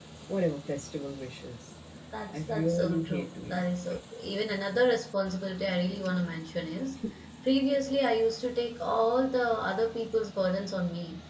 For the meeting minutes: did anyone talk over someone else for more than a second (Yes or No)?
Yes